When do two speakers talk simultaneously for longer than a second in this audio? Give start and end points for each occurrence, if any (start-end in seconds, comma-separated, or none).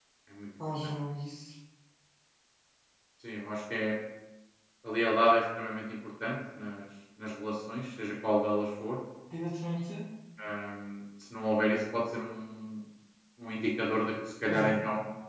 none